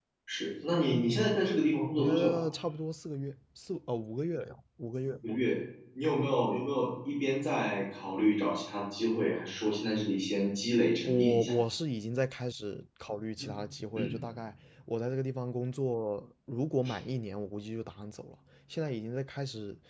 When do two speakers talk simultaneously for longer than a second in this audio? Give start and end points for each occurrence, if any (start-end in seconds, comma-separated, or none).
none